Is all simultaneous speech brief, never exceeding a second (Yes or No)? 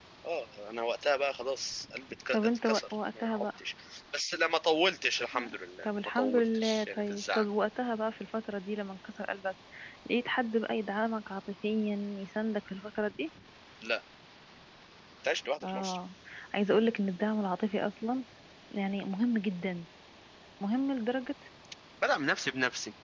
No